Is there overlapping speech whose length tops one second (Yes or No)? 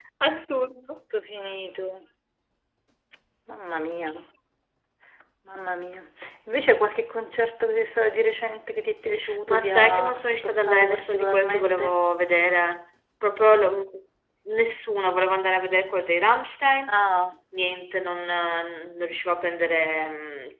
Yes